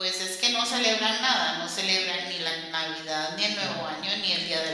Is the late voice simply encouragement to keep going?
Yes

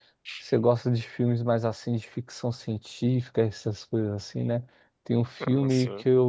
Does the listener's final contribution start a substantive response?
No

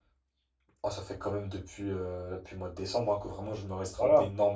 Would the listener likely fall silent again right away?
No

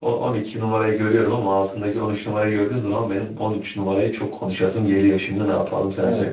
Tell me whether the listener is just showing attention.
No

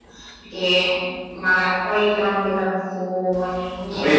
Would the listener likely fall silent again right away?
No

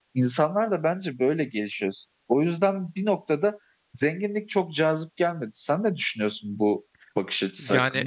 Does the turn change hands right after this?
Yes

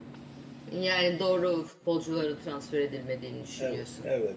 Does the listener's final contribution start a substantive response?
Yes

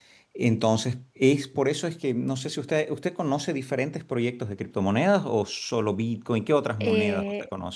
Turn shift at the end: Yes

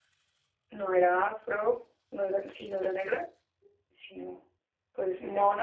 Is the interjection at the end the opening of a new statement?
No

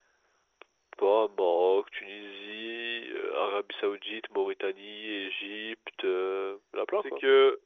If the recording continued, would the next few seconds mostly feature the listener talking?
Yes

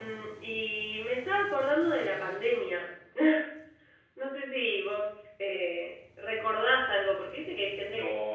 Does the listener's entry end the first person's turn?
Yes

